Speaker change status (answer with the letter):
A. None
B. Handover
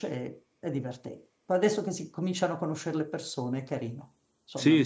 B